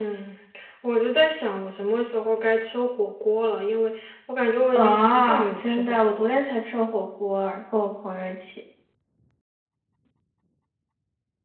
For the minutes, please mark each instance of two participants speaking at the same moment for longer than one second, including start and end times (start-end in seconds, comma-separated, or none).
4.8-6.3